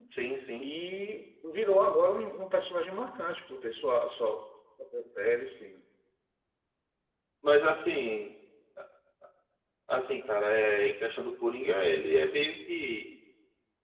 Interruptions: none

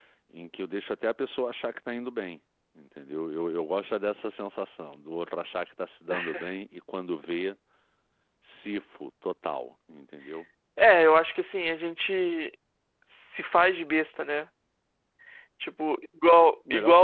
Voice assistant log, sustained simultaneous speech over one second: none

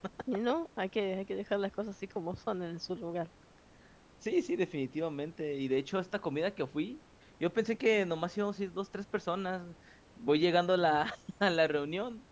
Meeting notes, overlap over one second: none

